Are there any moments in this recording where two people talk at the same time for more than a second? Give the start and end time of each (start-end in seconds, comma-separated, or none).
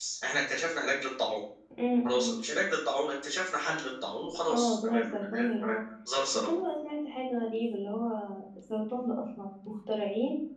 4.5-5.8